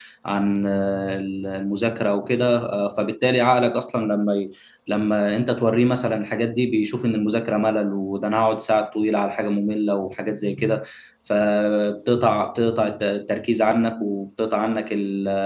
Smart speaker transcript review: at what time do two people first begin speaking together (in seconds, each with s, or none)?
none